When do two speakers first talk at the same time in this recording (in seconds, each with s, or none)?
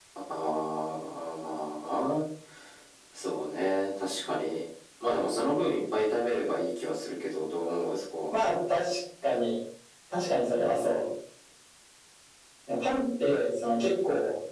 none